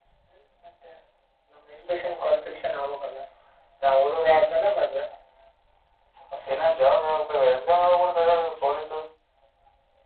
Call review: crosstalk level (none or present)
none